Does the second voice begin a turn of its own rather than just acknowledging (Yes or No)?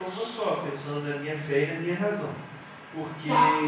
No